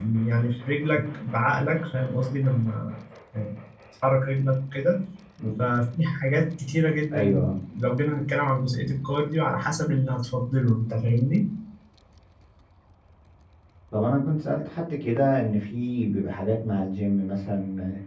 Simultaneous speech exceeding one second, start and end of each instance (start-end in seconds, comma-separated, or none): none